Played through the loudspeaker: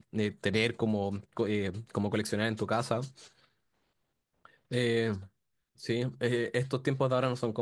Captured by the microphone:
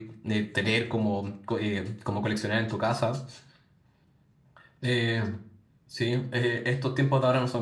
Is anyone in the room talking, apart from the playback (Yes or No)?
No